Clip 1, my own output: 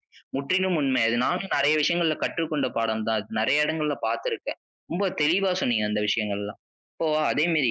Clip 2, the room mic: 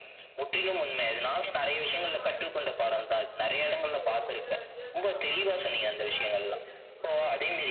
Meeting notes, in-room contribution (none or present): present